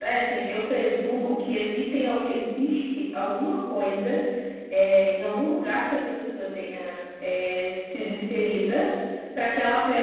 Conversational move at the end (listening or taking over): listening